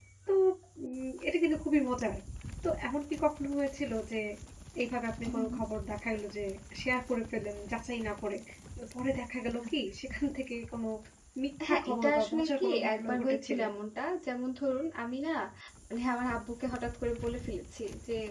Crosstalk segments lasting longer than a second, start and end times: 11.7-13.6

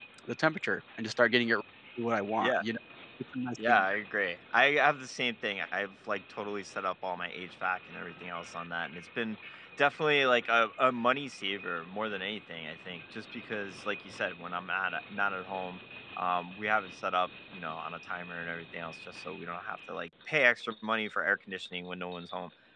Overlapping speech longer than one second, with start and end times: none

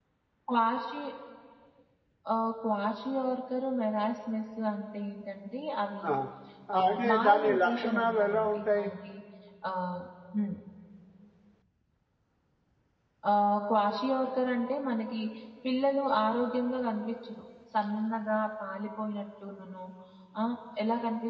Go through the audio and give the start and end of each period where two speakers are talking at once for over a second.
6.8-8.8

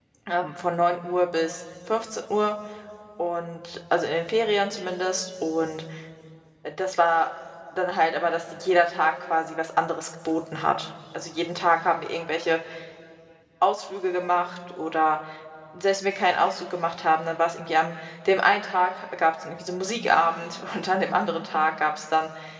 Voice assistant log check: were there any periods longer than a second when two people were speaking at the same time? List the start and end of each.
none

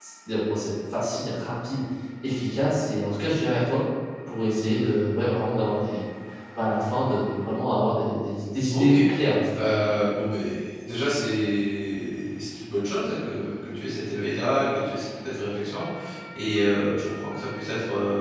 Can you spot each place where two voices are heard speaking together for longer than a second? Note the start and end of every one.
none

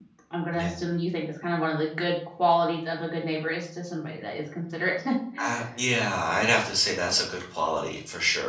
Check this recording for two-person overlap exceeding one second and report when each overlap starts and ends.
none

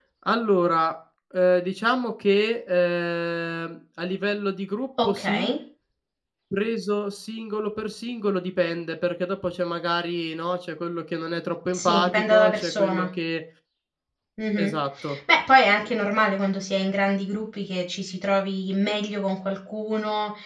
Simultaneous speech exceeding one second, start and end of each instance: 11.7-13.1

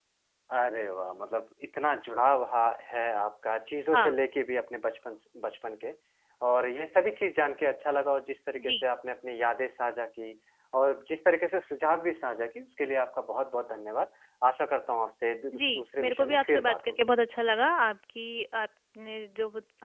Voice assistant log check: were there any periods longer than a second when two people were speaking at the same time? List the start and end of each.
15.6-17.1

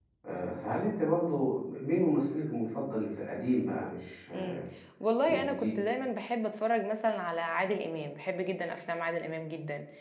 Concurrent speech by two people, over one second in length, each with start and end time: none

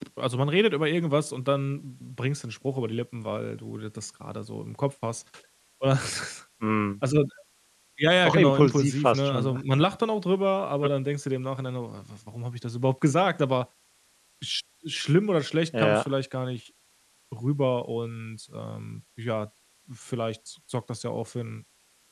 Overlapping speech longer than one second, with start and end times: 8.2-9.6

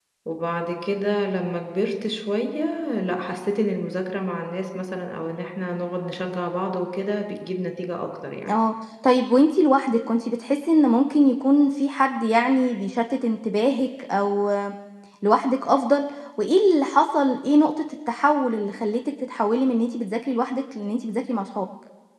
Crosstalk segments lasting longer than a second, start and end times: none

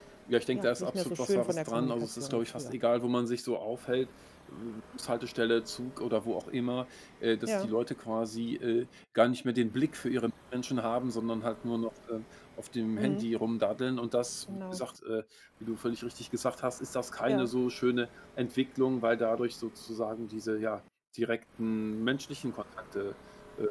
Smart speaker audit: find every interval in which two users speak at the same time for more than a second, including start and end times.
0.5-2.8

